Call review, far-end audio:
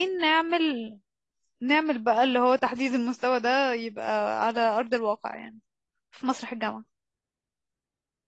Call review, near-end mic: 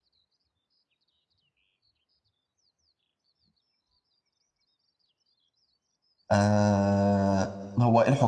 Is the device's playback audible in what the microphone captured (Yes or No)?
No